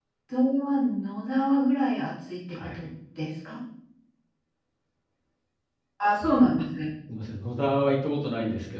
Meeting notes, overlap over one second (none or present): none